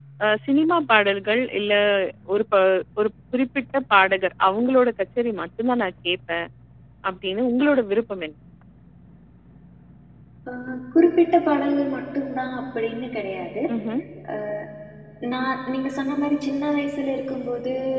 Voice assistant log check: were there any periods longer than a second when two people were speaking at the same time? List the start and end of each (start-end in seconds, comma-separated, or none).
none